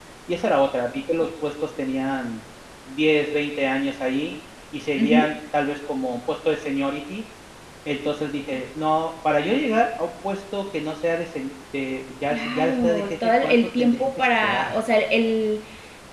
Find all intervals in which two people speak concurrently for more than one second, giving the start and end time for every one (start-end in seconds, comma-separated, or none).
12.3-14.8